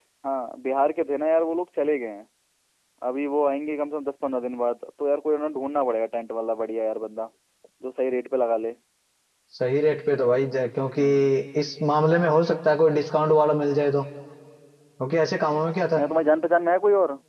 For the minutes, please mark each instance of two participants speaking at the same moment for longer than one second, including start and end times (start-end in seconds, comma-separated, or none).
none